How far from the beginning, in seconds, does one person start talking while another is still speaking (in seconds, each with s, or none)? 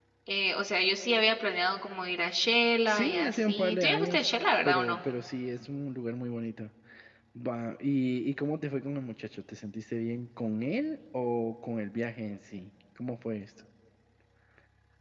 2.8 s